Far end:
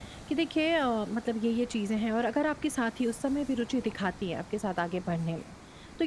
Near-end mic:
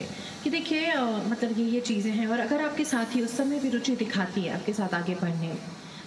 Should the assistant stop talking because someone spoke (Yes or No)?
No